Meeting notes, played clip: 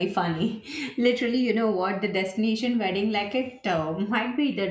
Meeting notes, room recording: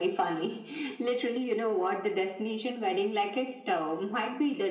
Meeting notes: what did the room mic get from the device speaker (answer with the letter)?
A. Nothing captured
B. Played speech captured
B